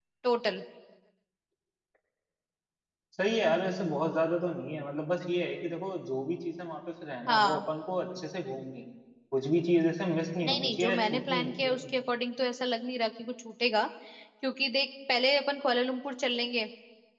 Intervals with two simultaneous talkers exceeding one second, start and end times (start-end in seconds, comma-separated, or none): 10.4-11.9